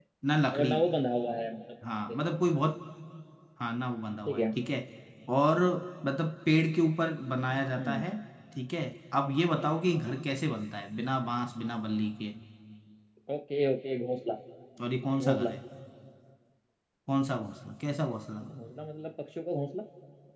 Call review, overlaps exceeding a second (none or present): none